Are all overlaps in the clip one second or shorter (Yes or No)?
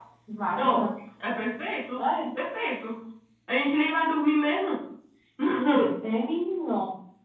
Yes